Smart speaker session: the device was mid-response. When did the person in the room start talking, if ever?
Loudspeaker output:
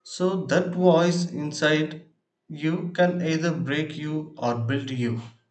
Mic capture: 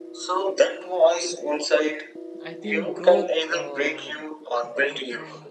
2.4 s

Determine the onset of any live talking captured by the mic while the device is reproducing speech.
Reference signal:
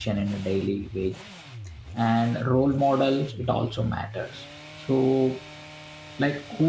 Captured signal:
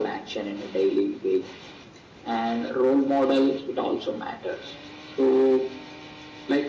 none

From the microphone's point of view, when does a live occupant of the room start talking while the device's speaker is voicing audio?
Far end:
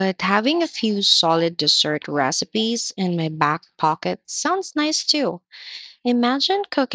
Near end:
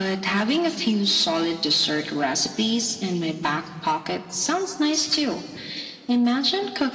none

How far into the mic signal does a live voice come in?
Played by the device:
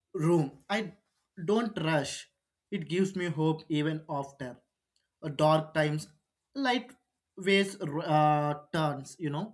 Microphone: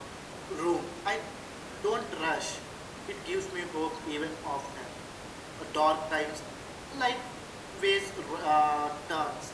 none

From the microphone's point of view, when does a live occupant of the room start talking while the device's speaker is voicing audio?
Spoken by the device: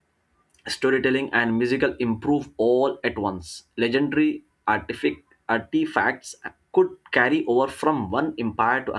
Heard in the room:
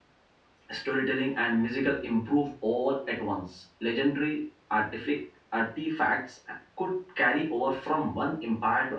none

